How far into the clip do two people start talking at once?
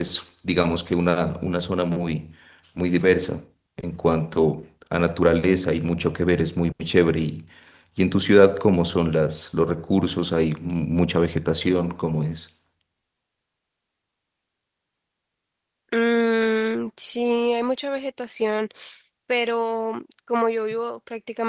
none

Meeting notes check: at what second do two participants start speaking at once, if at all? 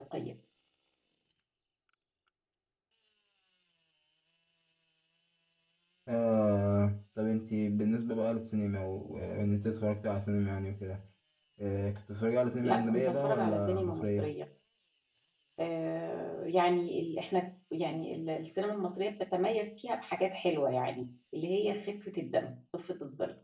12.6 s

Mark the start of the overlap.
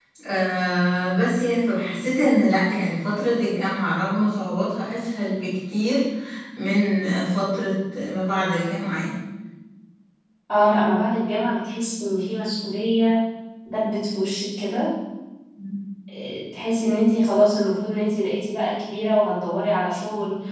none

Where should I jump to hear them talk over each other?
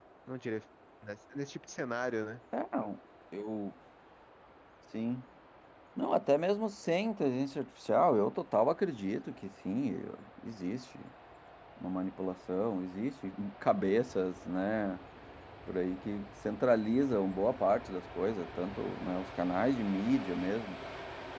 none

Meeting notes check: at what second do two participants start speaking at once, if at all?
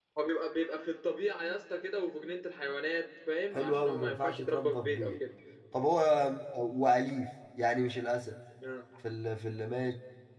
3.5 s

